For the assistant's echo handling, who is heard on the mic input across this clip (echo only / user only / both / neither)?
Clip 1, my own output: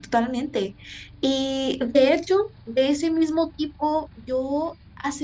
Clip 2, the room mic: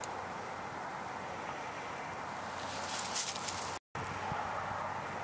neither